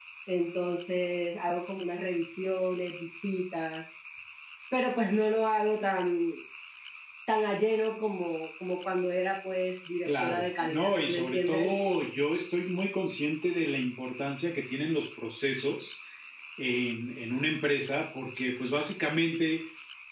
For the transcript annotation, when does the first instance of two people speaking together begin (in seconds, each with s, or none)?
10.1 s